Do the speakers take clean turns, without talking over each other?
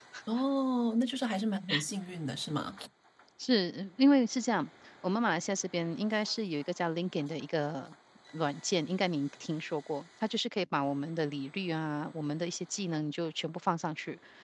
Yes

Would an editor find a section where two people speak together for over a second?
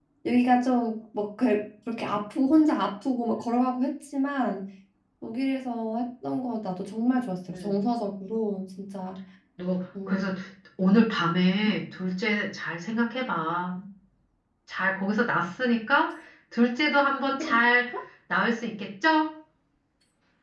No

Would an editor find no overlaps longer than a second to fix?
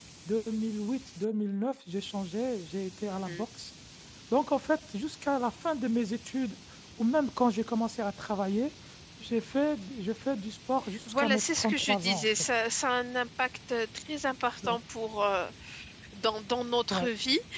No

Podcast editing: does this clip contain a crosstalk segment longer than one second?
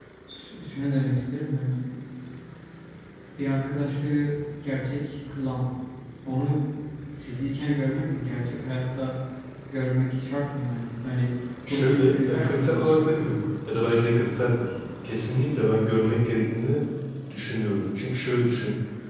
Yes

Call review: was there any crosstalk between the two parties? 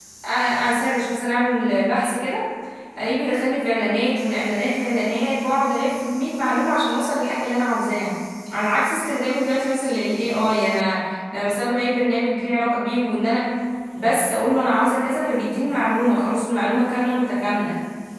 No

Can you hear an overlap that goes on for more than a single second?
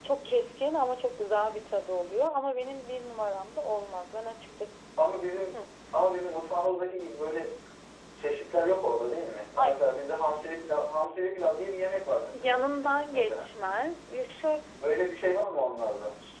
No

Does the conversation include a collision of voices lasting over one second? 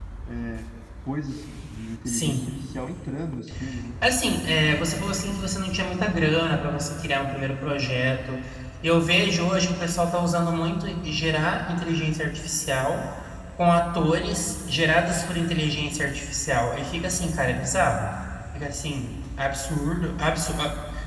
No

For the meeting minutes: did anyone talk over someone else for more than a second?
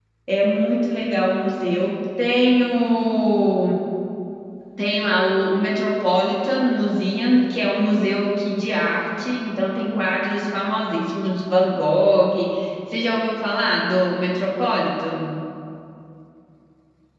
No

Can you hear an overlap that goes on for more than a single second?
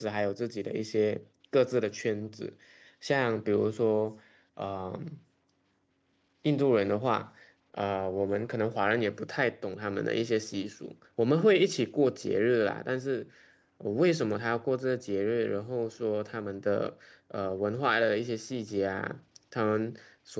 No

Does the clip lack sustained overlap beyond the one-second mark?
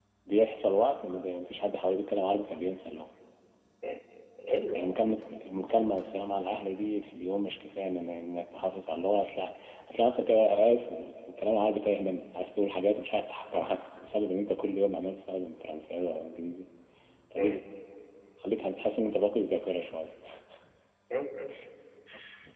Yes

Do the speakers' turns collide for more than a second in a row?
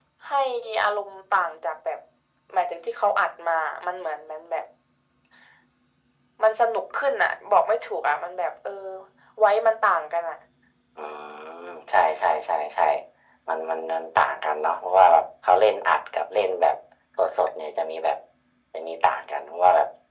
No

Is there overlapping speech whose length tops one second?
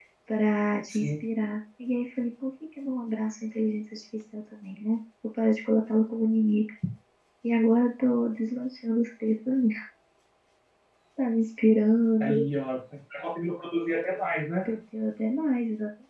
No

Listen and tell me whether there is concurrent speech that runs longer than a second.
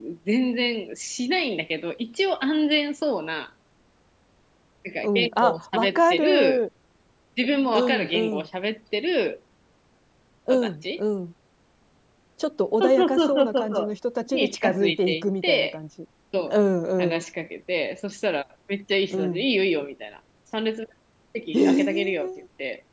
Yes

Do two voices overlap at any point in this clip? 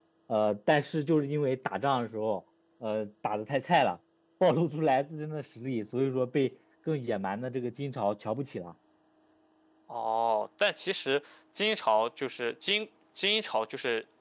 No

